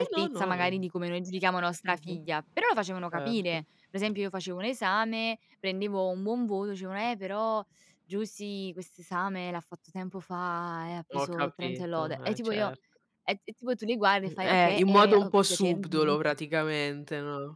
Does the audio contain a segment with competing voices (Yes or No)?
Yes